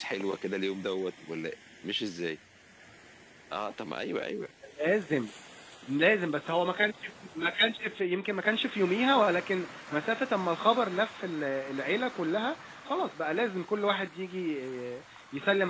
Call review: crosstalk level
none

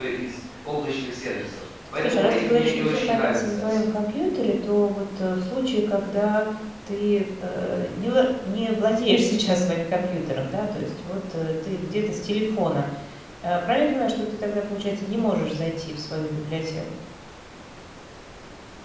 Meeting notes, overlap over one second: present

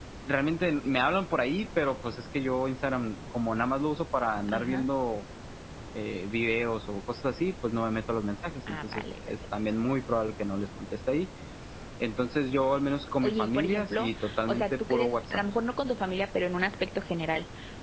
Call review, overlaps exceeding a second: present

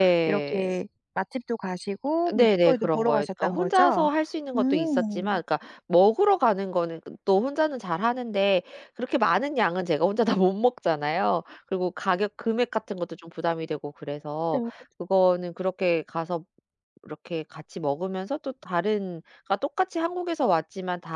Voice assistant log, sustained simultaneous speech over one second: present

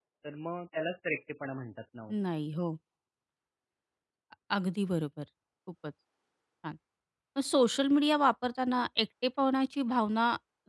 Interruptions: none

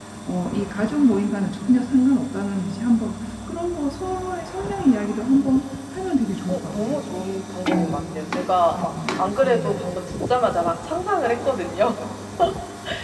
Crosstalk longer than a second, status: none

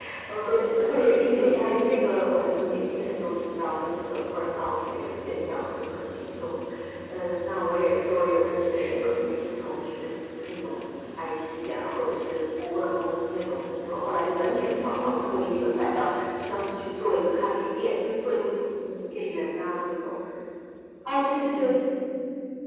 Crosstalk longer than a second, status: present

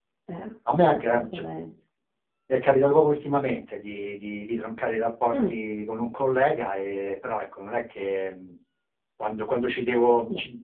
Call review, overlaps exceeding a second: none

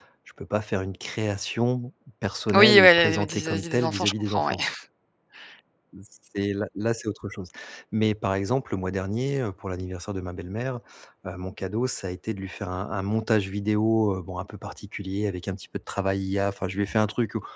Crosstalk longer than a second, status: present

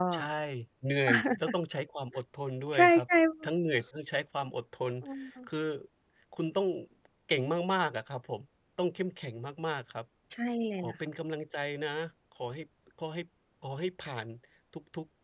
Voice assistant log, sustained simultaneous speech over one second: none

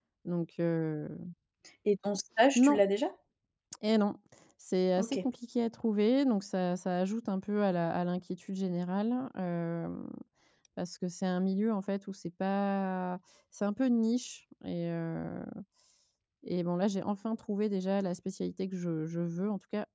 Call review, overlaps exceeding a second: none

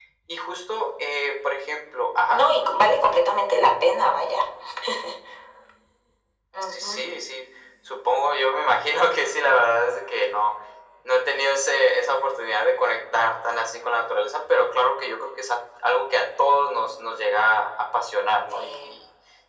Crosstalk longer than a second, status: none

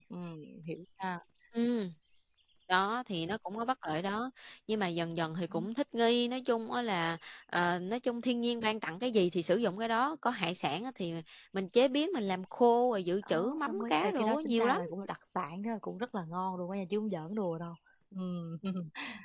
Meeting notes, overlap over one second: present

